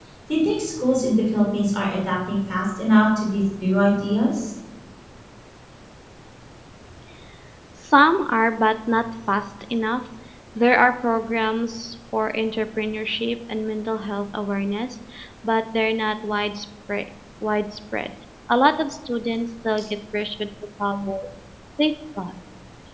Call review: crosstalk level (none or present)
none